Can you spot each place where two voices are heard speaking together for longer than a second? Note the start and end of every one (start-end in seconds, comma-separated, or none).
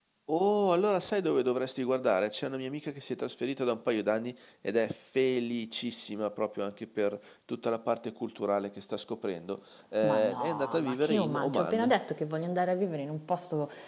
10.0-11.9